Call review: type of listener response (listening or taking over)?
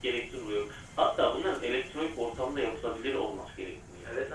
taking over